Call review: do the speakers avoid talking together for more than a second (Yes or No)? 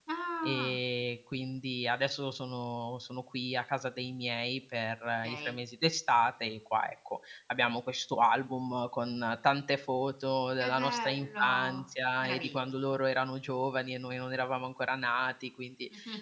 No